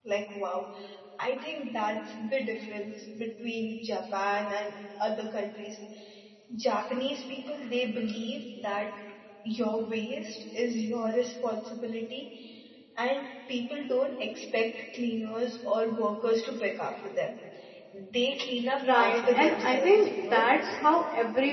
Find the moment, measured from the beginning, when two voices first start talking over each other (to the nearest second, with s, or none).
19 s